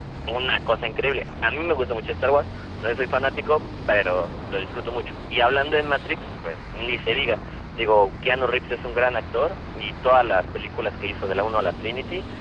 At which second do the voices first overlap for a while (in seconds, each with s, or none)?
none